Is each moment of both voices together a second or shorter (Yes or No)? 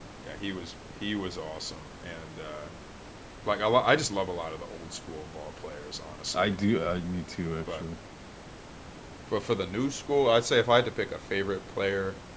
Yes